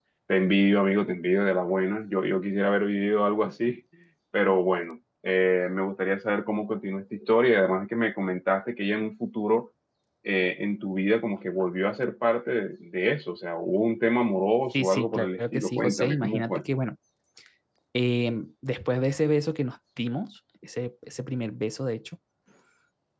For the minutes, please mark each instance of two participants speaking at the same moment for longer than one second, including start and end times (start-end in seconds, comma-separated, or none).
14.7-16.6